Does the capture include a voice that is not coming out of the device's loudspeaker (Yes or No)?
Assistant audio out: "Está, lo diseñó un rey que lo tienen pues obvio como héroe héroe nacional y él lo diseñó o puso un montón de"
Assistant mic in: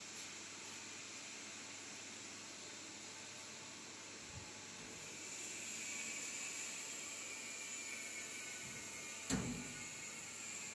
No